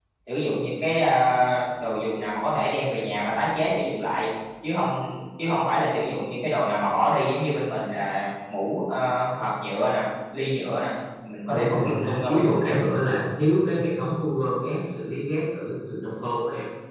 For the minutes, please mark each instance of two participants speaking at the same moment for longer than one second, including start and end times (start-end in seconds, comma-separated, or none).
11.5-12.7